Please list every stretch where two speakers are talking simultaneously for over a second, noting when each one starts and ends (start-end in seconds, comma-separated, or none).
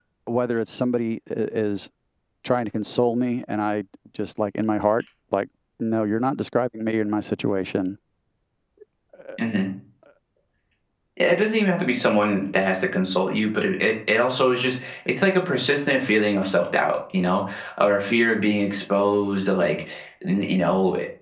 none